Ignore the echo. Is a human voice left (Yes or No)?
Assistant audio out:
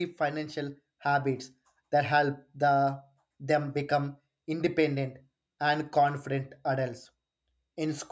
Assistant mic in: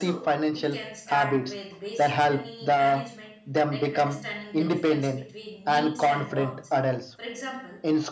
Yes